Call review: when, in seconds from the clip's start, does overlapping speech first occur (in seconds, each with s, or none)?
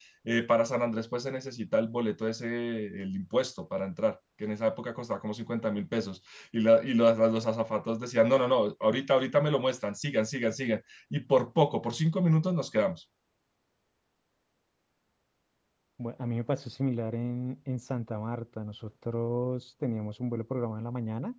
none